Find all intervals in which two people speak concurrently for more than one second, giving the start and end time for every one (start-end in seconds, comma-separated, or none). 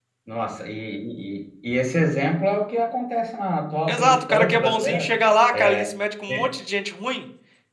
3.9-5.1